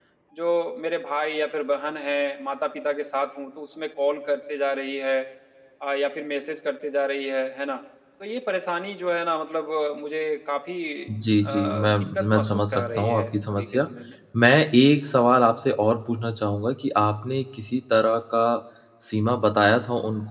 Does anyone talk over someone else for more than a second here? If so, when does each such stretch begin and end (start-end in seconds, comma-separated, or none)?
11.4-13.9